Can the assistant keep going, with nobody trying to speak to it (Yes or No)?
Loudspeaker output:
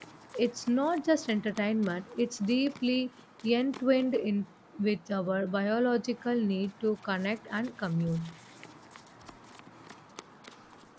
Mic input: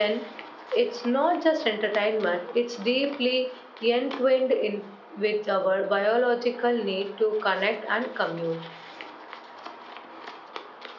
Yes